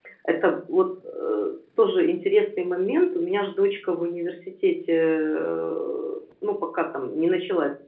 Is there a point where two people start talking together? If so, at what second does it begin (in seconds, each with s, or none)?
none